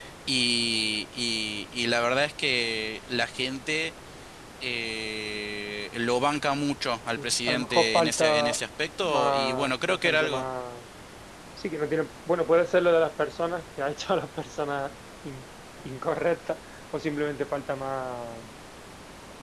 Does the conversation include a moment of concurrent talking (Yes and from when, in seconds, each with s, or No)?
Yes, from 7.2 s